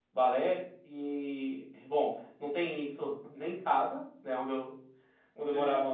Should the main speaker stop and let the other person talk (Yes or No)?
No